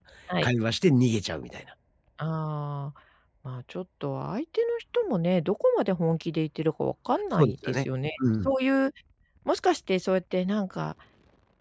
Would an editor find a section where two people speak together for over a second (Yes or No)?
No